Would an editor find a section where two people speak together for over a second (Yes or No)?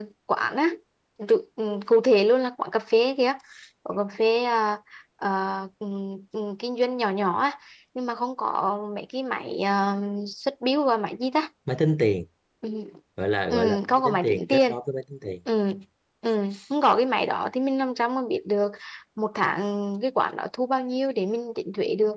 Yes